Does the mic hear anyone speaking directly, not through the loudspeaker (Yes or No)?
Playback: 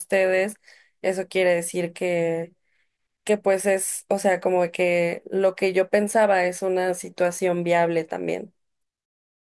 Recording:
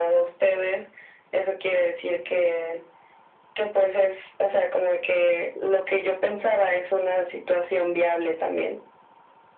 No